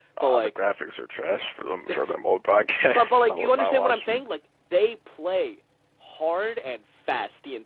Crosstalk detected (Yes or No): Yes